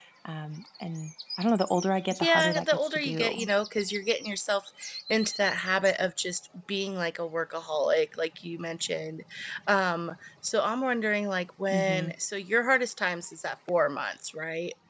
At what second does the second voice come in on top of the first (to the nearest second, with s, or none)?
2 s